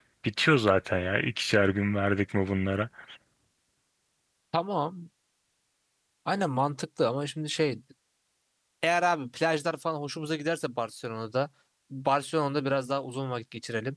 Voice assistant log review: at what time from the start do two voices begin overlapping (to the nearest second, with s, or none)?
none